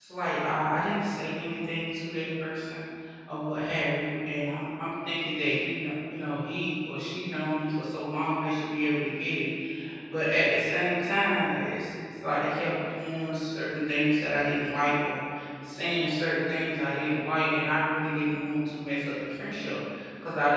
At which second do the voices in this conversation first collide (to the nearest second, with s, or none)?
none